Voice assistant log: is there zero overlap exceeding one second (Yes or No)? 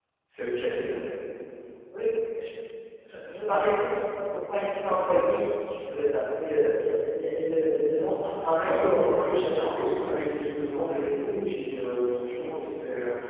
No